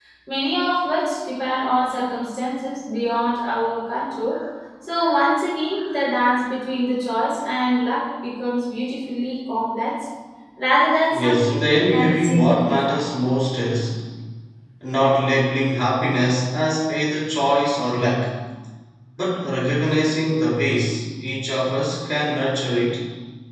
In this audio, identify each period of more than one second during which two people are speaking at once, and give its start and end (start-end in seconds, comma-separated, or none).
11.1-13.0